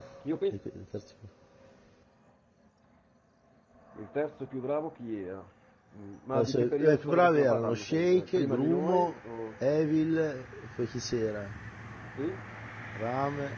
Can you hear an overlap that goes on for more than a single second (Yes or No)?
Yes